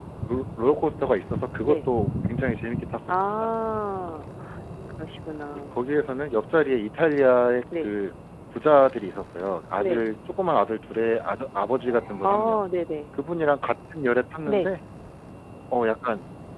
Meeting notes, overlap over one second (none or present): none